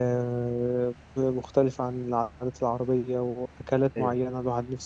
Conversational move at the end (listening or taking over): listening